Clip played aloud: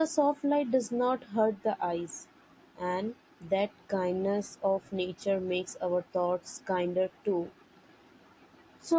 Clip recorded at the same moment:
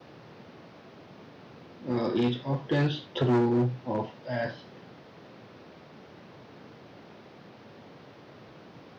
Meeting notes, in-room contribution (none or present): present